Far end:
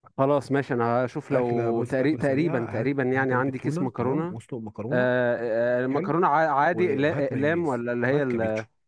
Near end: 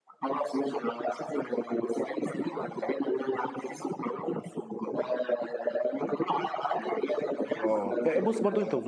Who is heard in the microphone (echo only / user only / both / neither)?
both